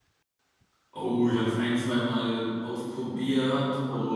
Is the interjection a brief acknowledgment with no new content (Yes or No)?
Yes